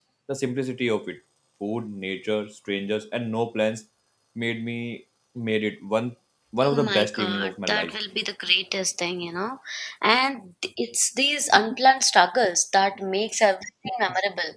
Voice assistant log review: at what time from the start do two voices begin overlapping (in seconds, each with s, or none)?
6.7 s